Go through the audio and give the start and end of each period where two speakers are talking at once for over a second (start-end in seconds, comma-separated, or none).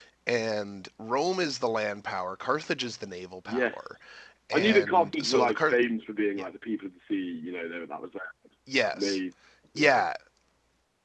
4.5-5.8